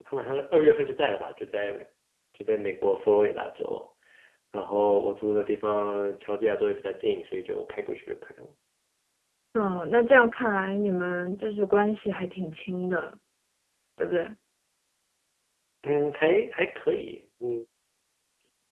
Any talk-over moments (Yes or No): No